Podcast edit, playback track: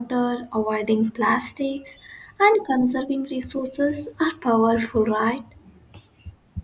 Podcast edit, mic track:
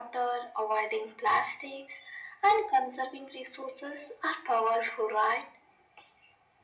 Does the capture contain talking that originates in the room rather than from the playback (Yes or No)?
No